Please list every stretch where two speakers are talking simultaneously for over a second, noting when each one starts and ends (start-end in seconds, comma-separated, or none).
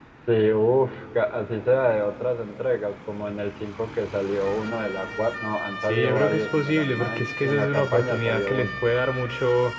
5.8-8.7